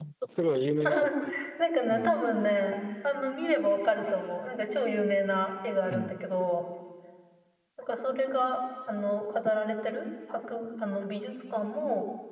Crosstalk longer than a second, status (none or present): none